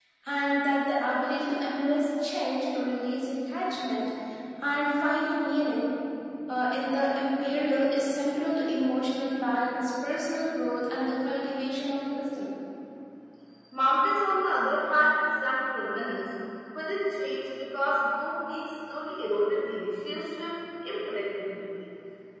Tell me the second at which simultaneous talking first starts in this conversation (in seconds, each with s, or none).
none